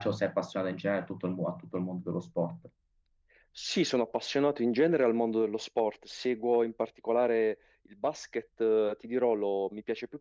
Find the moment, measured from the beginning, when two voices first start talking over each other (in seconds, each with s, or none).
none